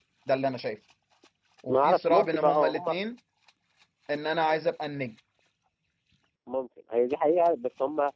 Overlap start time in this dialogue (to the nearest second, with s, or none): 2 s